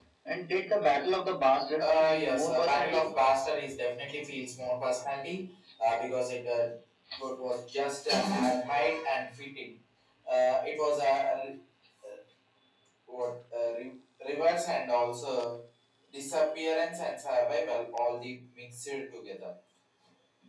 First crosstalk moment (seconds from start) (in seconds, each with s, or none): 1.8 s